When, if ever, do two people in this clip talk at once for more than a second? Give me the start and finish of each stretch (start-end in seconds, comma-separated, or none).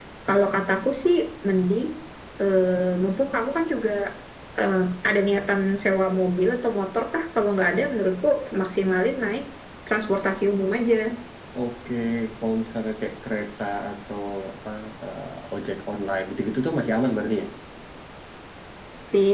none